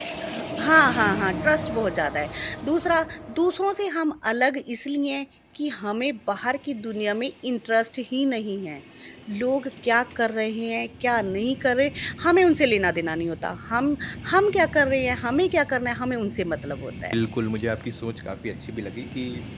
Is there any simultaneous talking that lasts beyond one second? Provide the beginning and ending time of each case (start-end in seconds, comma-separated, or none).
none